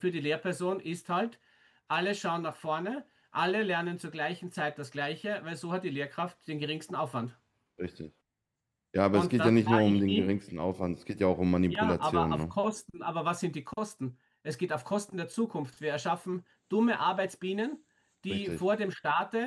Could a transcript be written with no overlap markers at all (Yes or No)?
No